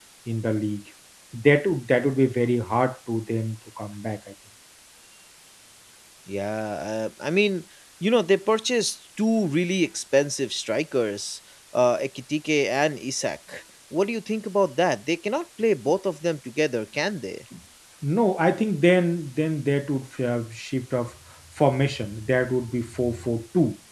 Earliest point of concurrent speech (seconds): none

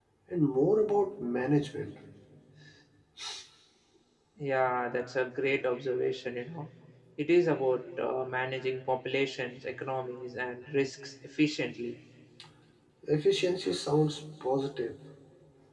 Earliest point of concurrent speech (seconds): none

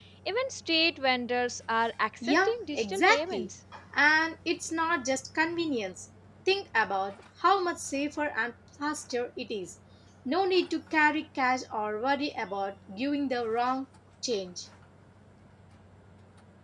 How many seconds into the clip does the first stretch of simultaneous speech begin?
2 s

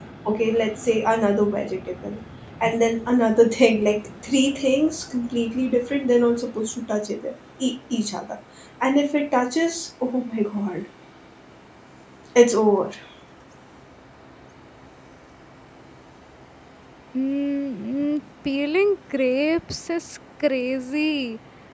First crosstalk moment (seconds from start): none

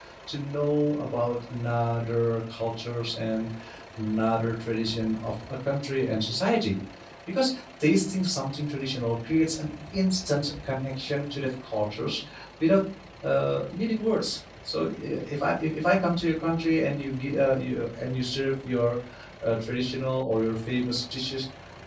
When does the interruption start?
none

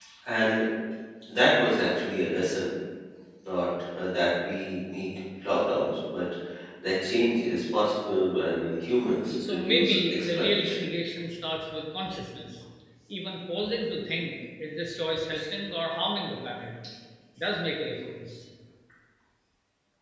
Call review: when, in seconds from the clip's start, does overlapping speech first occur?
9 s

